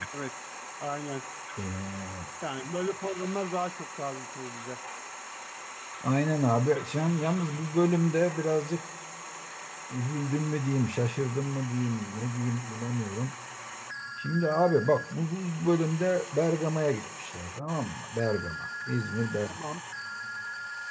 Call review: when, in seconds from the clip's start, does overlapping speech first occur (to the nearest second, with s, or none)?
none